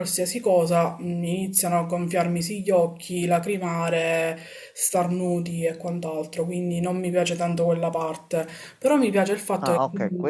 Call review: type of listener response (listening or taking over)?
taking over